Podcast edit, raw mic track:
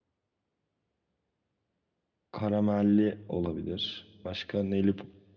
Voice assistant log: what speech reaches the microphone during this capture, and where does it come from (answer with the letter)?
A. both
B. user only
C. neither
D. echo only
B